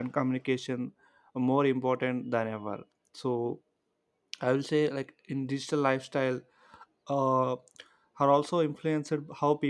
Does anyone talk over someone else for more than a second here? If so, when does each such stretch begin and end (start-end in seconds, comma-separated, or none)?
none